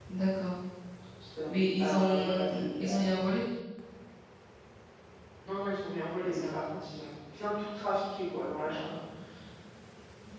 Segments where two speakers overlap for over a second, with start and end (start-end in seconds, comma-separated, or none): 1.5-2.9